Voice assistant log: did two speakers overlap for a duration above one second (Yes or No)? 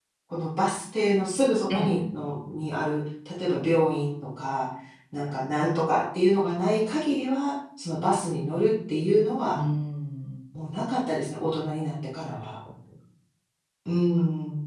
No